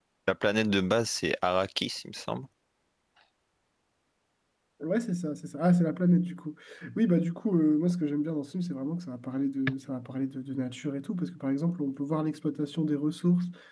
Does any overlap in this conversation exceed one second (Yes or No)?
No